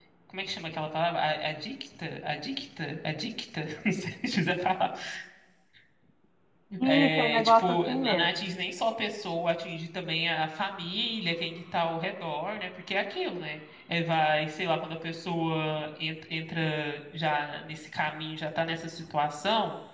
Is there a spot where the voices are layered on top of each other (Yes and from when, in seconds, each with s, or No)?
Yes, from 6.8 s